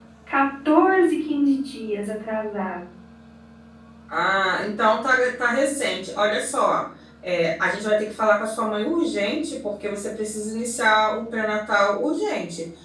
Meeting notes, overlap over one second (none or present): none